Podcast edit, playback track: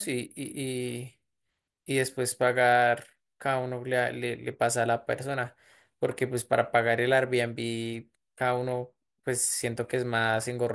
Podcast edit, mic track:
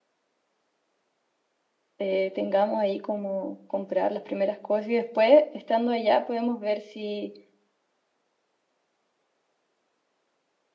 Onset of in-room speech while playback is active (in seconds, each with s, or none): 2.0 s